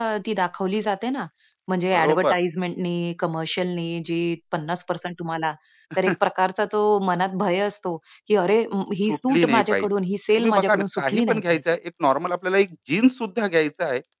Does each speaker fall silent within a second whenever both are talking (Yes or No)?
No